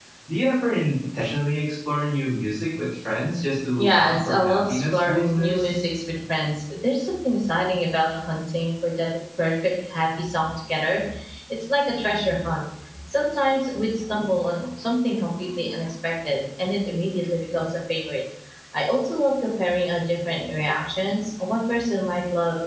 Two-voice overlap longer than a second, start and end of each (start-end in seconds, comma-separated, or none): 3.8-5.7